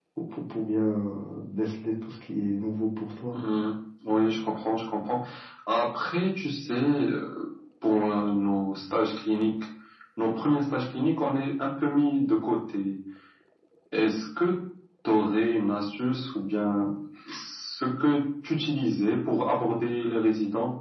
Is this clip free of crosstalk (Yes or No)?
Yes